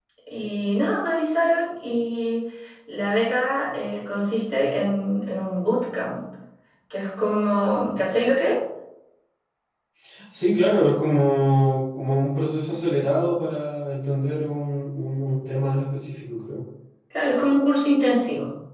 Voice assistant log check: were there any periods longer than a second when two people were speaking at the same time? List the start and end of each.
none

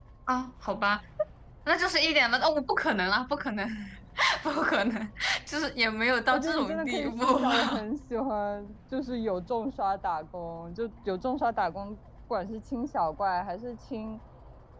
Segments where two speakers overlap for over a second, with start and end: 6.3-7.8

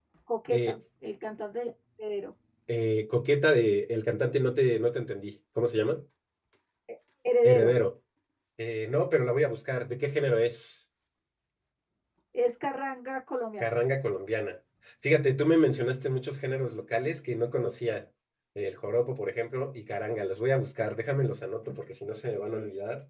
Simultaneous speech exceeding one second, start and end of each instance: none

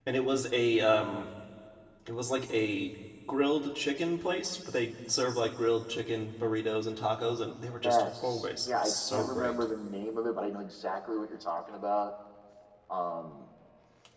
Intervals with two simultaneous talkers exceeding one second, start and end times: 7.8-9.6

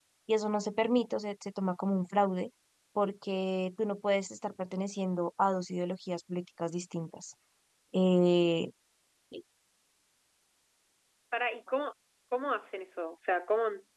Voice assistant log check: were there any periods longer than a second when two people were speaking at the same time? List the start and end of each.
none

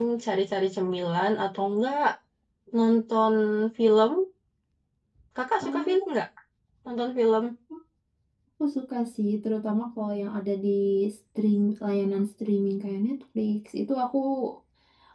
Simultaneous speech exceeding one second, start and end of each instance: none

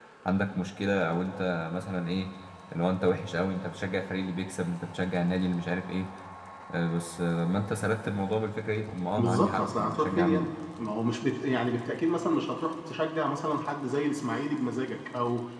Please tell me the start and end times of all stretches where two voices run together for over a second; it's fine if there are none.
9.2-10.5

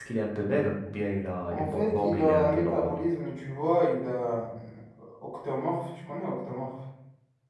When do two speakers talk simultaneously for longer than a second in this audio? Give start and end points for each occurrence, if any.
1.5-3.0

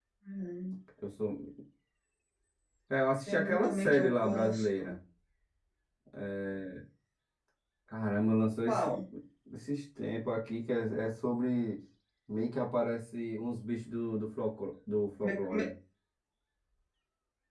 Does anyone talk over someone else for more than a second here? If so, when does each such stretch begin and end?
3.3-5.0

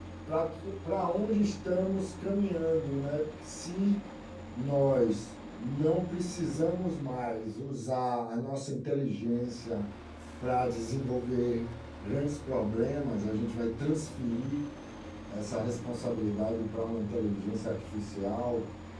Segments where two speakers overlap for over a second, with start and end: none

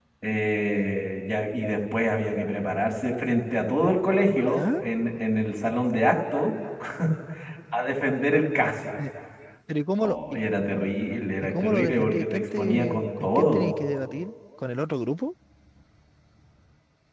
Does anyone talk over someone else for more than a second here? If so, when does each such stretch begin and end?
11.4-13.7

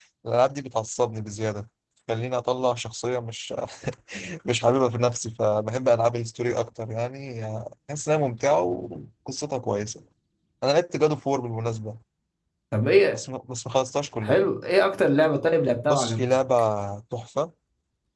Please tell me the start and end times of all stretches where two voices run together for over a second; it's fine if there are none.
none

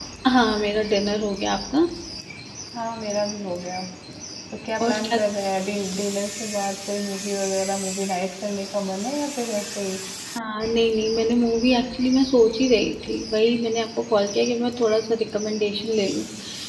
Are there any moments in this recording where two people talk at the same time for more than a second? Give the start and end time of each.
none

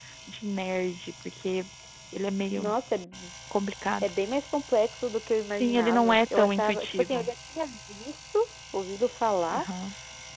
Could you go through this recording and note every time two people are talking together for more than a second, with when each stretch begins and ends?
5.6-7.2

